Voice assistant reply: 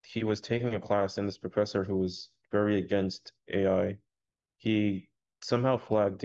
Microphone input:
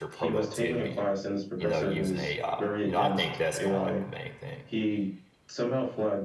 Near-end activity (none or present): present